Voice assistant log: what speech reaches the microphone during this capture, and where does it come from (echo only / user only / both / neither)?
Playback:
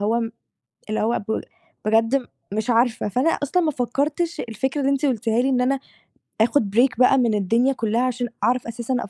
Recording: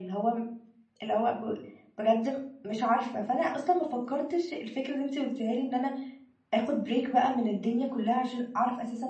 echo only